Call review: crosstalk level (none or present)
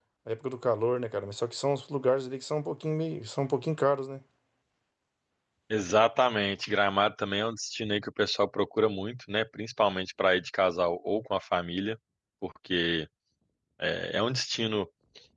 none